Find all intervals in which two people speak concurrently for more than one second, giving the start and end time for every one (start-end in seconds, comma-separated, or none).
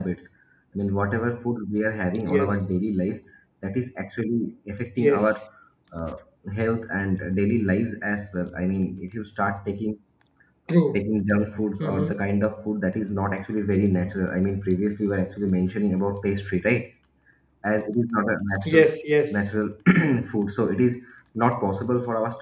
none